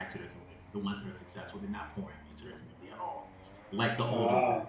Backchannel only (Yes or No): Yes